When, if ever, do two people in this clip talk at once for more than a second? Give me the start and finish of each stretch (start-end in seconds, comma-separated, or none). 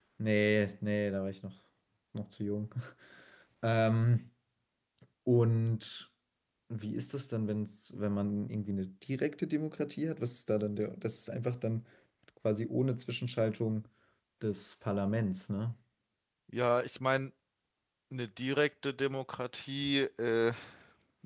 none